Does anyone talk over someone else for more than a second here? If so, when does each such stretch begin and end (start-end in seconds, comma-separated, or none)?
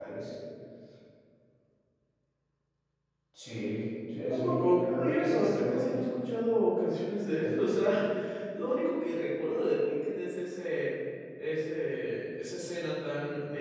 4.3-6.2